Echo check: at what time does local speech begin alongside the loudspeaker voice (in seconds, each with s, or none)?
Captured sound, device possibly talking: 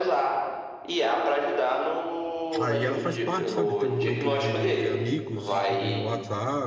2.6 s